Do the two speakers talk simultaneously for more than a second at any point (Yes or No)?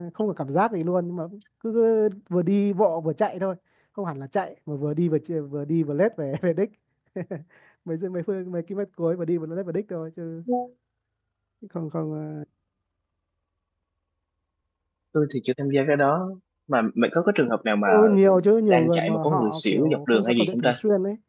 Yes